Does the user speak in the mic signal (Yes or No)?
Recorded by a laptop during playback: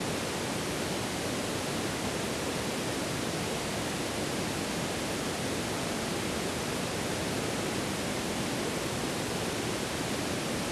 No